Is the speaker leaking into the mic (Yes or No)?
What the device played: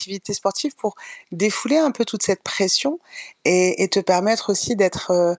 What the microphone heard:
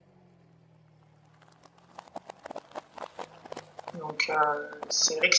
No